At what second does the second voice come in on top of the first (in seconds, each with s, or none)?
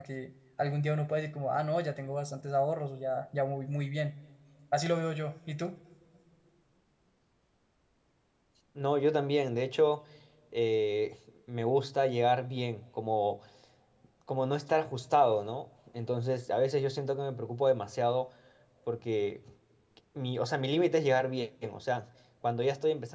none